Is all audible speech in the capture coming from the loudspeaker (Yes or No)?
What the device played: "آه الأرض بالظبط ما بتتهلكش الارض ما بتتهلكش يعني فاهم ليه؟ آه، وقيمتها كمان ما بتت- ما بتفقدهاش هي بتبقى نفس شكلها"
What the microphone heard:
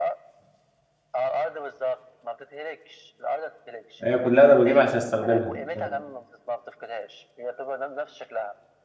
No